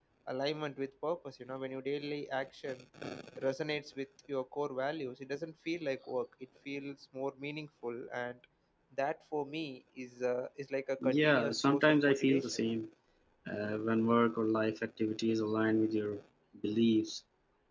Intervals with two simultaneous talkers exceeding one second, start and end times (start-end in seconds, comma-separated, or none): 11.0-12.6